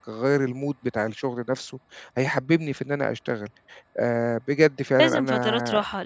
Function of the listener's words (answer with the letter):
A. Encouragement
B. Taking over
B